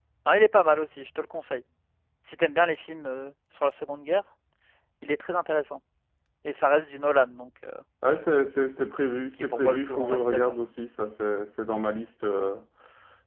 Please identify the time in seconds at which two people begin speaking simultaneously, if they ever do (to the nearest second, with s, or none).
9 s